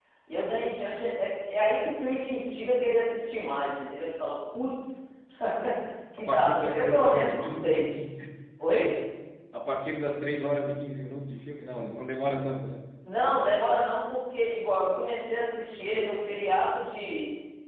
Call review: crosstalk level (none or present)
present